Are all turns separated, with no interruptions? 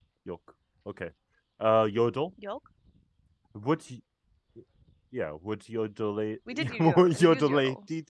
No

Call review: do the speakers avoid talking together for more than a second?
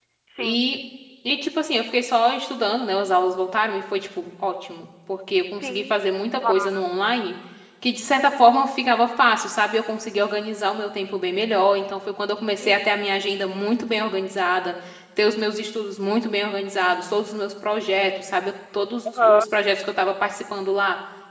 Yes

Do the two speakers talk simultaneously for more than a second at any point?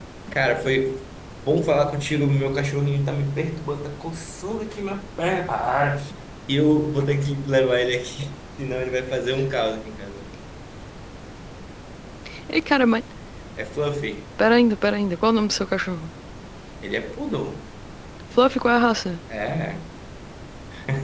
No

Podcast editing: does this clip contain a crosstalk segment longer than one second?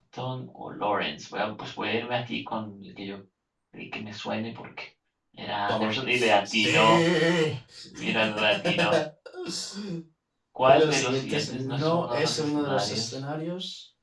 Yes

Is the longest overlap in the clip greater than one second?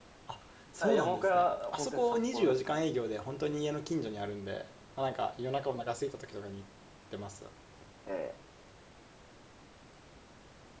Yes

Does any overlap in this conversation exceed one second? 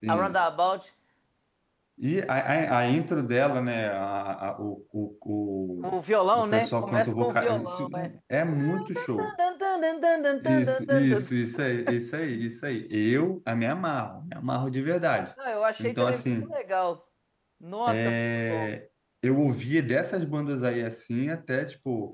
Yes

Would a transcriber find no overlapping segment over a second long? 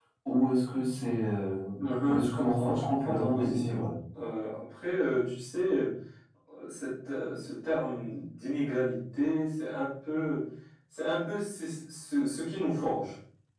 No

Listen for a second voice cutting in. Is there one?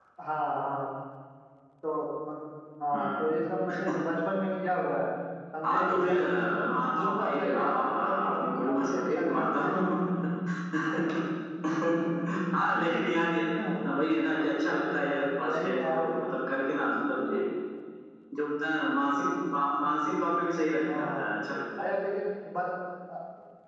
Yes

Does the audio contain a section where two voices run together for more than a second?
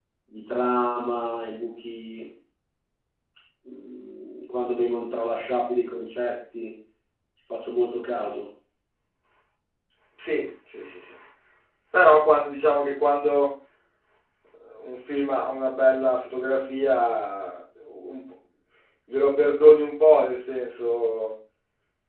No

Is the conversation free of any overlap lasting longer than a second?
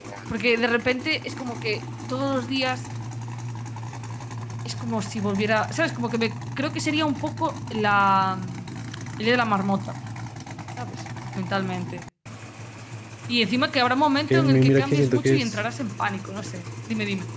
No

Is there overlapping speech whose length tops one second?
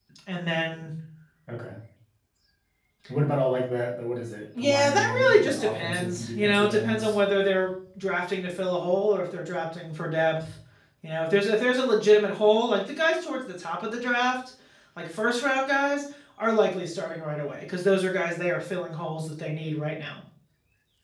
Yes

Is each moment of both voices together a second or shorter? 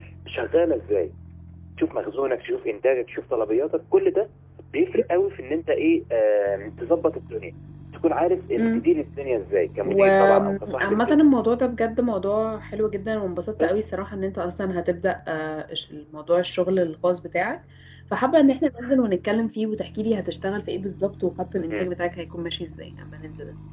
No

